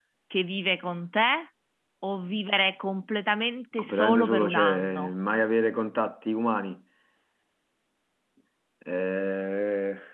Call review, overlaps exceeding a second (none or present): present